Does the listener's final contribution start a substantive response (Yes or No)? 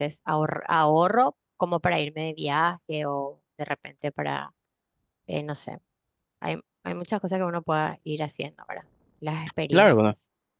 Yes